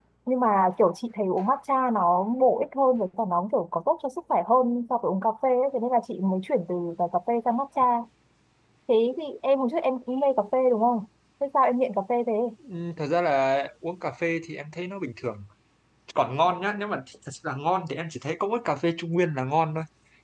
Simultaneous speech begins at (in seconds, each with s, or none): none